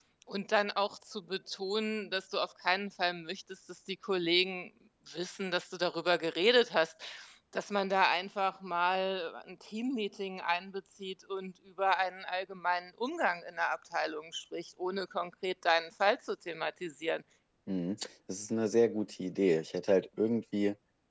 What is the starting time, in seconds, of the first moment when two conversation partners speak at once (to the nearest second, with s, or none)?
none